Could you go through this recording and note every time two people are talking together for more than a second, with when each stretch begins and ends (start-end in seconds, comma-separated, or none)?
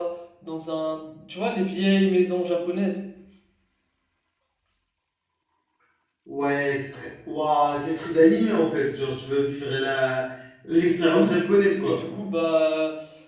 none